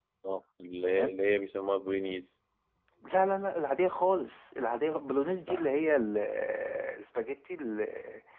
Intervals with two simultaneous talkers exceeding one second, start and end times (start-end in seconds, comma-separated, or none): none